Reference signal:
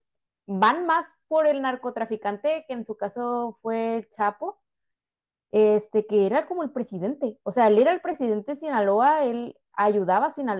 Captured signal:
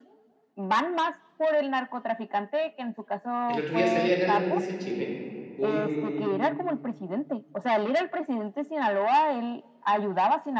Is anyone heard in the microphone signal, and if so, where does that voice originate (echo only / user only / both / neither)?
both